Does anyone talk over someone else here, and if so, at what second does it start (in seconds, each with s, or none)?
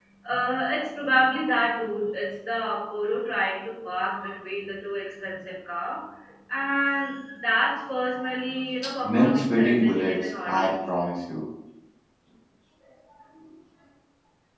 9.0 s